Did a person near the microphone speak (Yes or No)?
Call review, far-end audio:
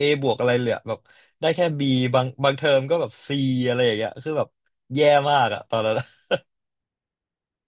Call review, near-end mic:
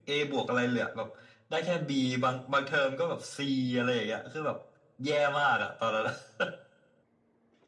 No